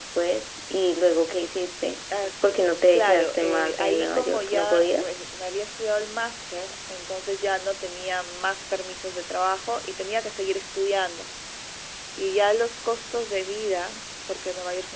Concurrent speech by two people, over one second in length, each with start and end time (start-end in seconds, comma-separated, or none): 2.9-5.1